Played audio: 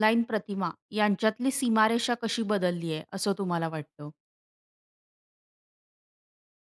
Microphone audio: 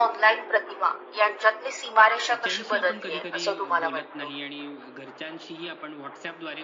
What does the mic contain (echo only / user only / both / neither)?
both